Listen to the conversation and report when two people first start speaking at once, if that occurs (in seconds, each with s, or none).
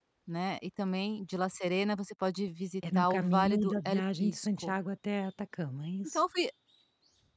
2.8 s